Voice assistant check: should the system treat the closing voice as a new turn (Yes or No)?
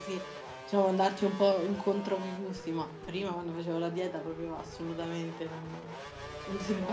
No